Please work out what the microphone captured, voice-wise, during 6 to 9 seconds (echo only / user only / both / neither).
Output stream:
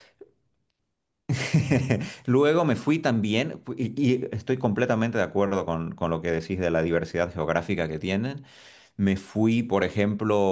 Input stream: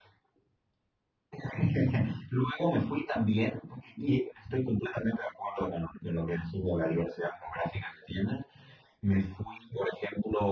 echo only